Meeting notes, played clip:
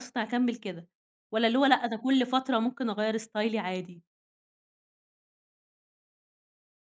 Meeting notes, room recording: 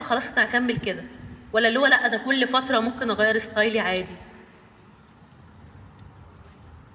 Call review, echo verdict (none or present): present